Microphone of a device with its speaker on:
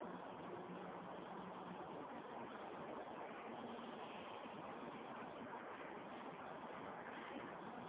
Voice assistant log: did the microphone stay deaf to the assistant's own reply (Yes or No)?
Yes